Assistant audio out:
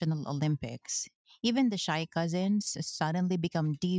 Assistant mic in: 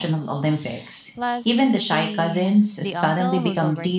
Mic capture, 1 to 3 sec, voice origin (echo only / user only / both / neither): both